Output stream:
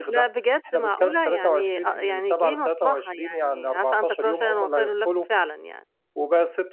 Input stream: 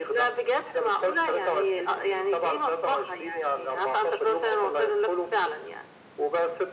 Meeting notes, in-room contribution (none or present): none